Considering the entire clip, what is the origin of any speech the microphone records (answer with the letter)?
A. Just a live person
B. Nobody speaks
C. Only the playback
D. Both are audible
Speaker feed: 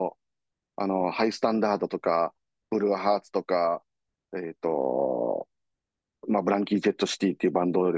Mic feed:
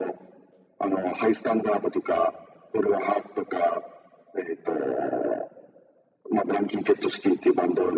C